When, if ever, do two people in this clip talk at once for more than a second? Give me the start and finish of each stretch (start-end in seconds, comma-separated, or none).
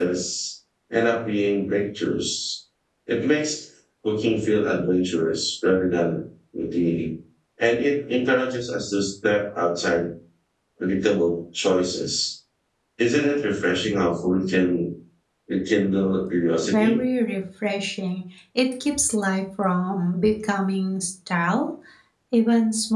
none